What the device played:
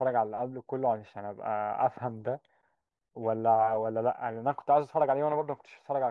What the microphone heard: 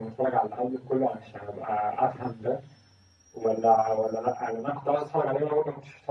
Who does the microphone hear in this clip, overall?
echo only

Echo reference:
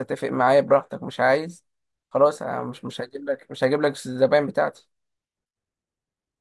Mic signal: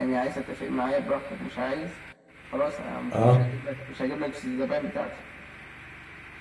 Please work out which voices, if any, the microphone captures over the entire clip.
both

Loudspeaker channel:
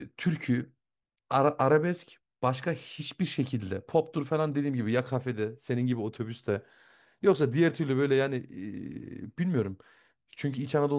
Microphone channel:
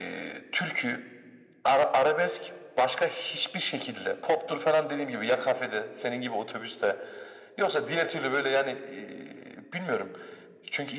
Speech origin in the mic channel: echo only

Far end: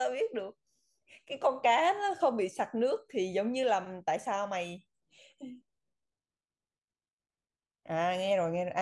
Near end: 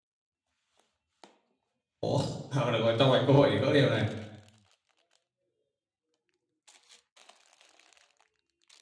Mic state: user only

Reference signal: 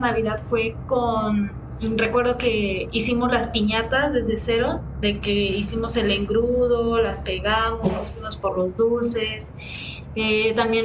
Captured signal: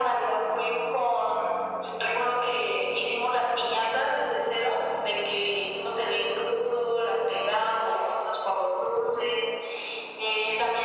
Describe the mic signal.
echo only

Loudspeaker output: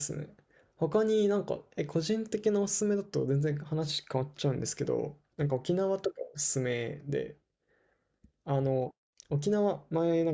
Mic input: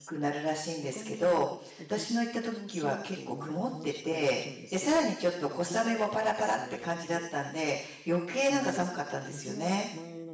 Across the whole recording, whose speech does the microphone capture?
both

